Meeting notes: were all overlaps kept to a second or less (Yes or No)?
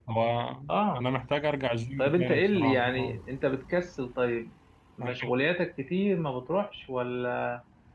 No